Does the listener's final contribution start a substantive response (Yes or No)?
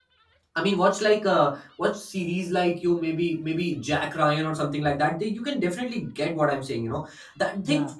No